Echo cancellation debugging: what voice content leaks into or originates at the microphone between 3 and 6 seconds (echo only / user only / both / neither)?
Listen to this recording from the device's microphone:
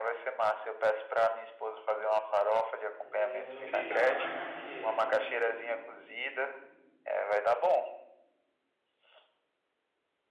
both